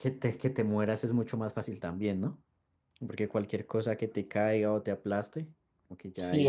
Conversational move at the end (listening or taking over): taking over